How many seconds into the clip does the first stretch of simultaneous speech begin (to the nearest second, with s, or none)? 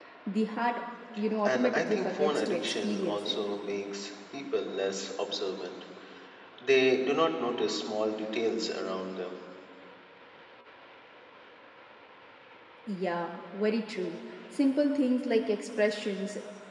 1 s